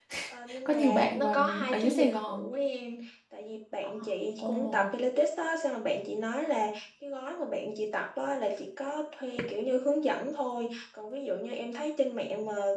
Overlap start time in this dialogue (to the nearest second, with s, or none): 1 s